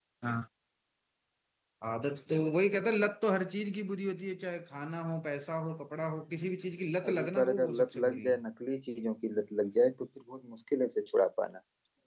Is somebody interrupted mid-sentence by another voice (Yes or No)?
Yes